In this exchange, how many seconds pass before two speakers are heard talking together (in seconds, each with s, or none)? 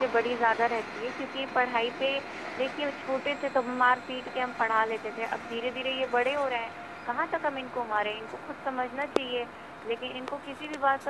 none